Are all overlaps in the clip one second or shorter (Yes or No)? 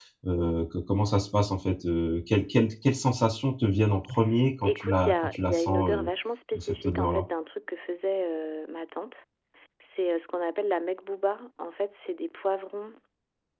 No